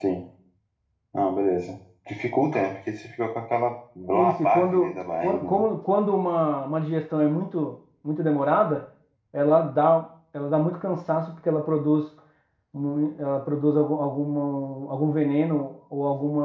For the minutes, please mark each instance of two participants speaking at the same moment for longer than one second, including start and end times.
4.1-5.7

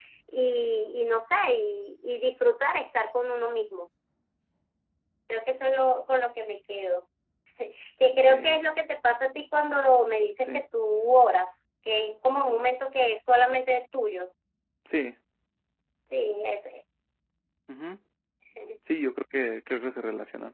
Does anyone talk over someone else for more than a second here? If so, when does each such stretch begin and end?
none

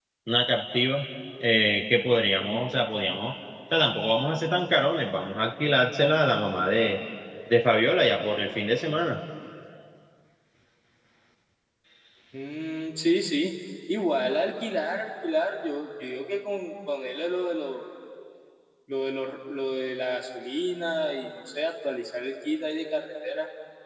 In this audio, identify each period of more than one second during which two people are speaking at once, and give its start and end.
none

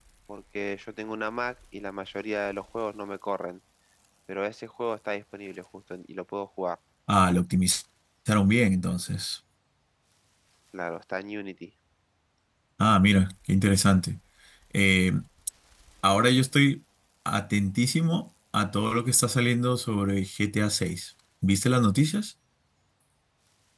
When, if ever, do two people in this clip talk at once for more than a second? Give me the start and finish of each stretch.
none

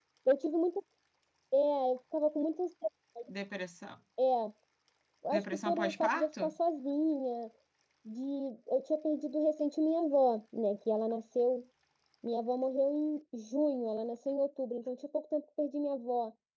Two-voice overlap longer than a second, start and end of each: 5.3-6.5

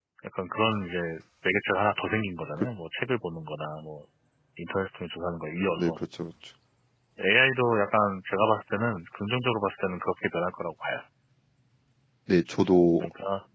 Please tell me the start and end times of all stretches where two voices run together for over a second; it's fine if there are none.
none

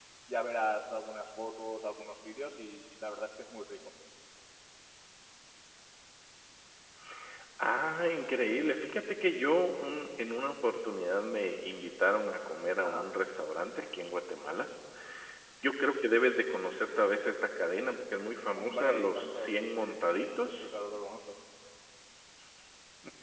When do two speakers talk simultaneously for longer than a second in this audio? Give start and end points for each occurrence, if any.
18.5-19.9

